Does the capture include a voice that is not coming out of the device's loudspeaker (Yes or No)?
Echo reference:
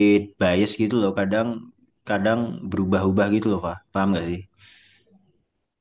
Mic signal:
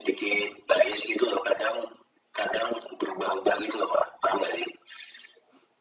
No